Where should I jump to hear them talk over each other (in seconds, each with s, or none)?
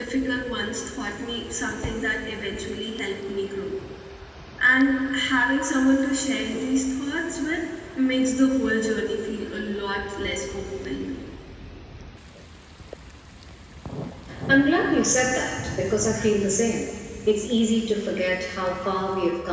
none